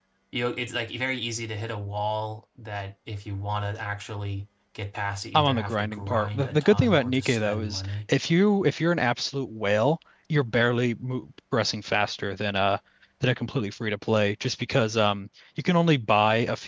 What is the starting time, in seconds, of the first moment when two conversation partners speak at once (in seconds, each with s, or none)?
5.3 s